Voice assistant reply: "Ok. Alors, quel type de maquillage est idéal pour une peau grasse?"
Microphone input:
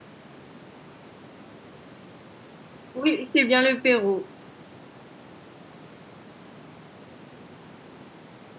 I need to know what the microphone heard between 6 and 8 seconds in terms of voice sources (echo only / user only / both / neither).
neither